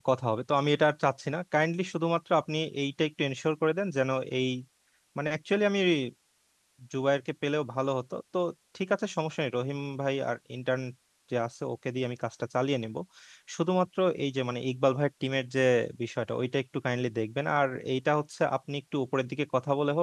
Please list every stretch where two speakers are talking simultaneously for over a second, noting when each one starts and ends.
none

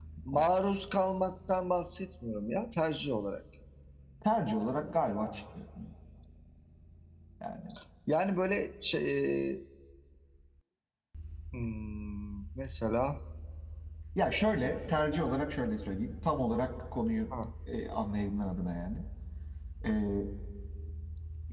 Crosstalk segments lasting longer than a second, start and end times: none

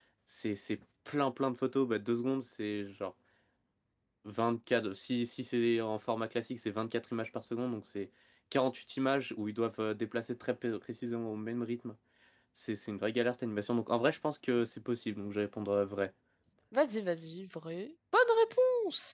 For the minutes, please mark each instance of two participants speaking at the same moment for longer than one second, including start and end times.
none

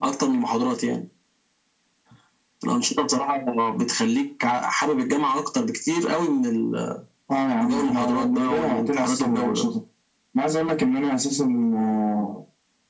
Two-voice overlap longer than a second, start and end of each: 7.6-9.7

